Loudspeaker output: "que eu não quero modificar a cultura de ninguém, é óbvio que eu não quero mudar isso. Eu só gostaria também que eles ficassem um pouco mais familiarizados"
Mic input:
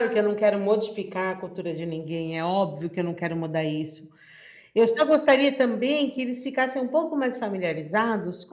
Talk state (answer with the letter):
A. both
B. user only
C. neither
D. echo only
D